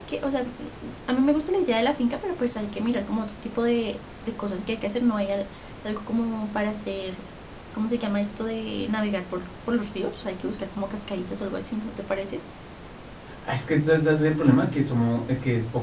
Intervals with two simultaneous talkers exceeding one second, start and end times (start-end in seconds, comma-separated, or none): none